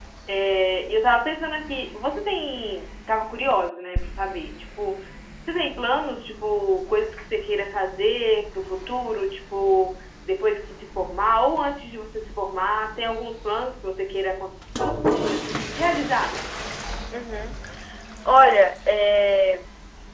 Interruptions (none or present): none